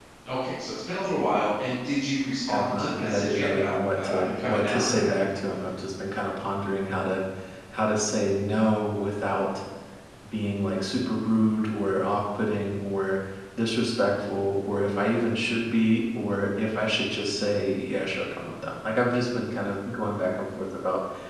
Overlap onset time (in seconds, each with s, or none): 2.5 s